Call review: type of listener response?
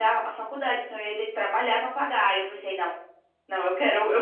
taking over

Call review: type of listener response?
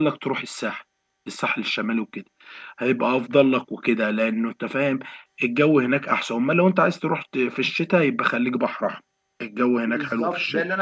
taking over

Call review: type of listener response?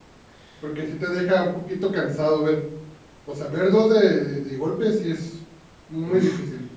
taking over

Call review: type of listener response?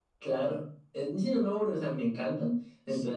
listening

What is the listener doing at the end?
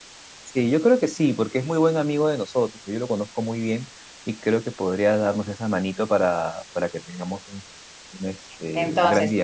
taking over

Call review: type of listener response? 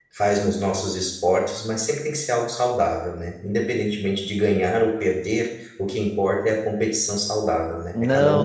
taking over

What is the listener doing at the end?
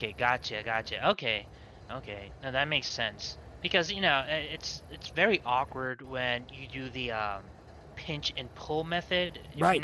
taking over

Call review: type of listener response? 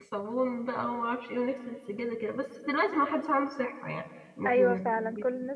taking over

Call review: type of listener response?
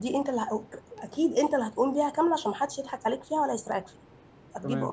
listening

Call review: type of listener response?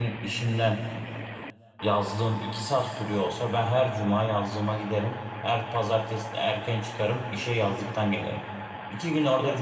listening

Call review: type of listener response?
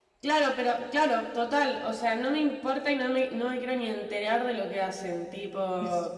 listening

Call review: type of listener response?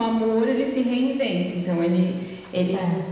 listening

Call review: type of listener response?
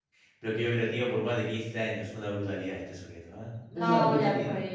taking over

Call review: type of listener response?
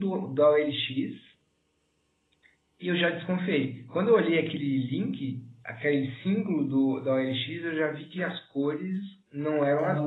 listening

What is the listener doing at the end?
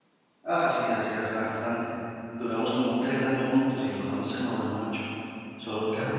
listening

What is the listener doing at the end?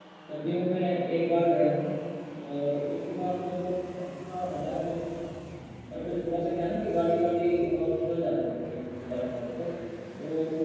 listening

